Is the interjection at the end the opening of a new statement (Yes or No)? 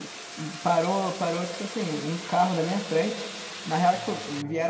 No